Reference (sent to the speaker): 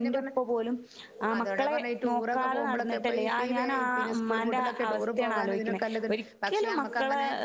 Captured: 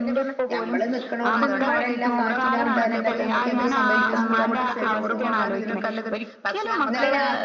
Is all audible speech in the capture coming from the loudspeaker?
No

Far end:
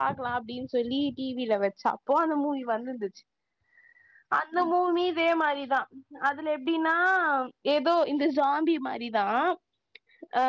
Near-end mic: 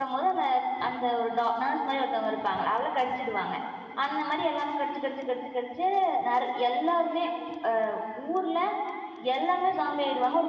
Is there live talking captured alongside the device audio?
Yes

